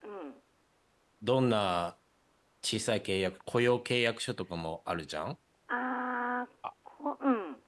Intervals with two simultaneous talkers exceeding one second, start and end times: none

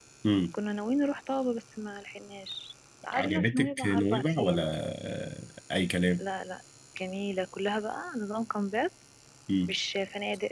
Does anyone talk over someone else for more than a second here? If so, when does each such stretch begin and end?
3.1-4.6

